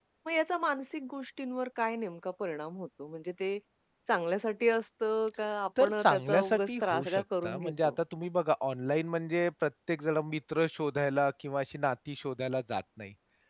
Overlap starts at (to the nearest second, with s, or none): 6 s